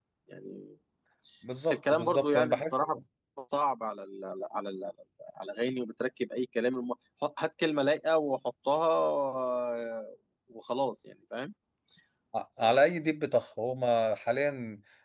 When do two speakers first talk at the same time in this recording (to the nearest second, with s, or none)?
2 s